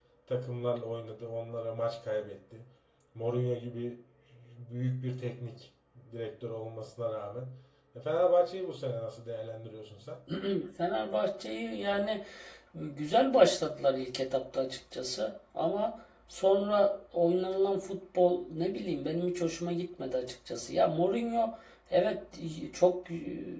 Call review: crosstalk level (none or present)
none